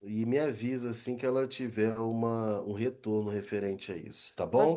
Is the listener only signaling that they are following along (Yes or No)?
No